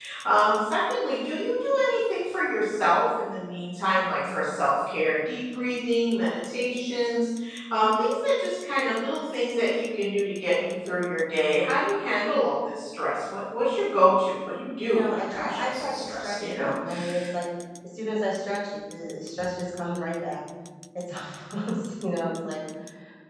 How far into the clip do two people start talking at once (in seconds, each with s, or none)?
14.8 s